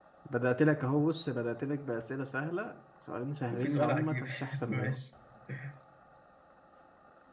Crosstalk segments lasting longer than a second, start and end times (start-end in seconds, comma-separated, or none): 3.5-5.0